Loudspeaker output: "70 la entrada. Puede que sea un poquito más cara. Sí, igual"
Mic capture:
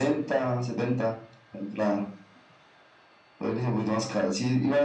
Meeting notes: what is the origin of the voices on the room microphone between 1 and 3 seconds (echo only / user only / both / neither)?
echo only